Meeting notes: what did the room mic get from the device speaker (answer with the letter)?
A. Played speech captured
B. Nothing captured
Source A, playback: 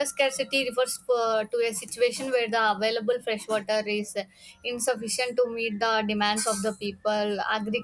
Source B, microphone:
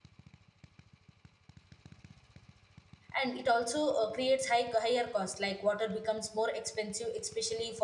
B